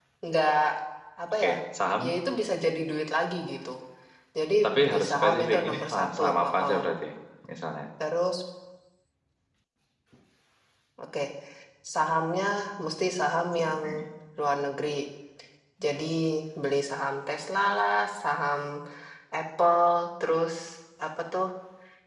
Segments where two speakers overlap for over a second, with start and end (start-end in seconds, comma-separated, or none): 4.6-6.8